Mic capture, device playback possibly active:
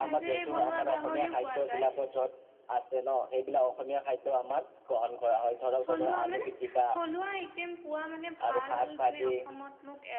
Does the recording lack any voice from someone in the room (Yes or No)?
No